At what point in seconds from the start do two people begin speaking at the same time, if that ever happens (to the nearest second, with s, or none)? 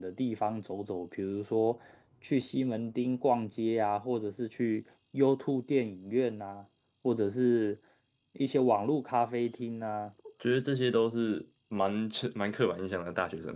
none